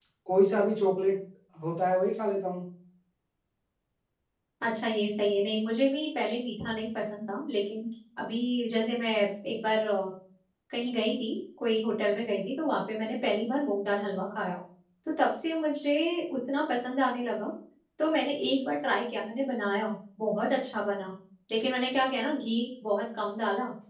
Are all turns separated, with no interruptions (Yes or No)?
Yes